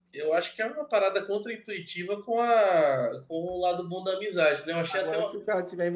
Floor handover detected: Yes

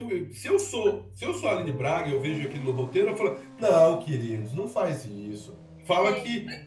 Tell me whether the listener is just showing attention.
Yes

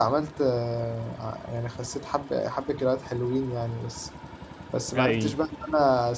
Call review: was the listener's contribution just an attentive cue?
Yes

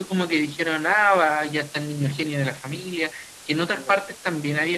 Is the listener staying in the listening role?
Yes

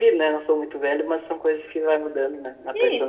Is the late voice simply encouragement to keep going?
No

